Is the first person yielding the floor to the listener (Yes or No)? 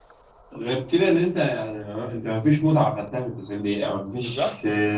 No